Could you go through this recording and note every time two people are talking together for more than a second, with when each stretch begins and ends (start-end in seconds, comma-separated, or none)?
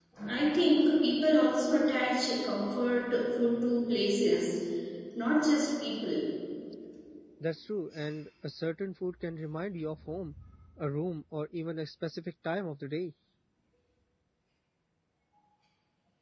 none